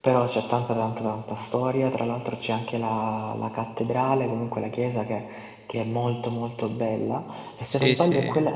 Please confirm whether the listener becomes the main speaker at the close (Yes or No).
No